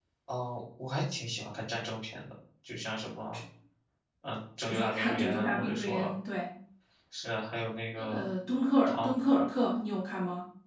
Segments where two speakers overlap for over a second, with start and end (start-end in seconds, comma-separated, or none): 4.6-6.1